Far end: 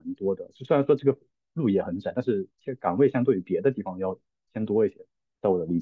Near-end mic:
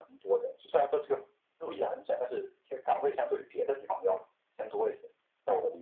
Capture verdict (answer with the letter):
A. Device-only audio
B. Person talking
A